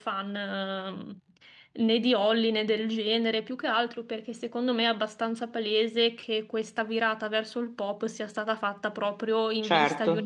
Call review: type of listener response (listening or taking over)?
listening